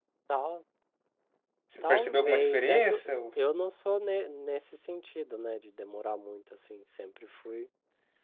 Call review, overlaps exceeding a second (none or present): present